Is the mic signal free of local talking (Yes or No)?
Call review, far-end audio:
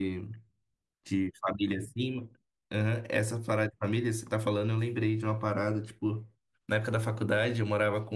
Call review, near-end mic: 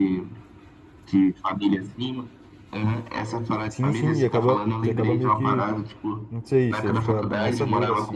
No